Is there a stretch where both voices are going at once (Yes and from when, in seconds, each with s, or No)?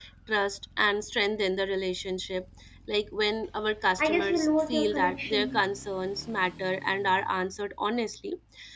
Yes, from 4.0 s